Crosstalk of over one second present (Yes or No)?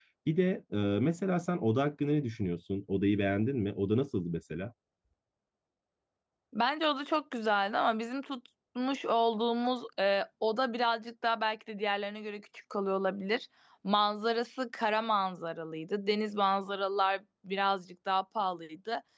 No